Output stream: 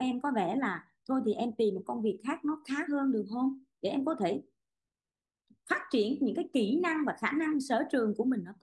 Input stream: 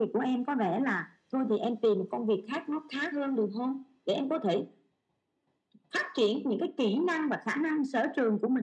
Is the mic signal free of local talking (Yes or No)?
Yes